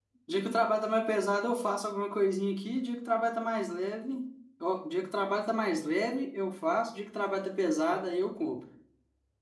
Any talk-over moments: No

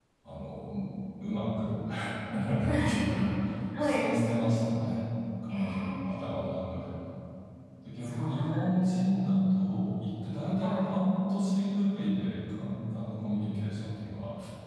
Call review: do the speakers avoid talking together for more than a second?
No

